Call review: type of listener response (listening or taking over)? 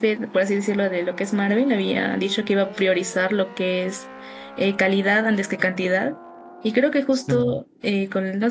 listening